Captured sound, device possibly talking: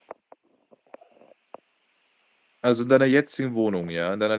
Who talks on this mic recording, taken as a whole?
user only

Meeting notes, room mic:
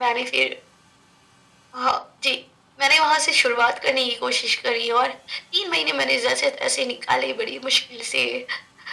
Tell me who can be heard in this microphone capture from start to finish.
echo only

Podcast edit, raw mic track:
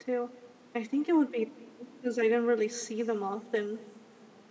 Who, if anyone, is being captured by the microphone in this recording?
user only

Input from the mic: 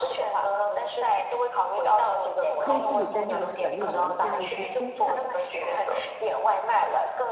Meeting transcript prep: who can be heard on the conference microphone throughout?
both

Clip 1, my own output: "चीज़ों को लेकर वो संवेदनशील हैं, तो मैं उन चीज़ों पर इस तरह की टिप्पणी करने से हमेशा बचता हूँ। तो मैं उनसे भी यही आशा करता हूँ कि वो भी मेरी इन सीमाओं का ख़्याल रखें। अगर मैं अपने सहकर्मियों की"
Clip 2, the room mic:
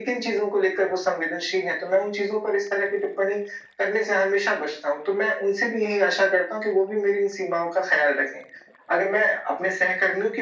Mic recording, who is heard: echo only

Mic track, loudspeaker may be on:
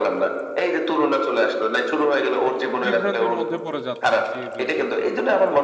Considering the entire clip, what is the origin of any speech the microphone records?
both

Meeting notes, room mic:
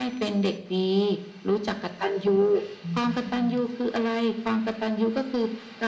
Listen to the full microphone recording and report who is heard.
both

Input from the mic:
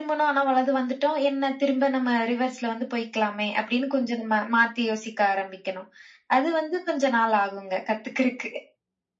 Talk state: echo only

